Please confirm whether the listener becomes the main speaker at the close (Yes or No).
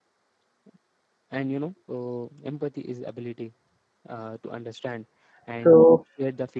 No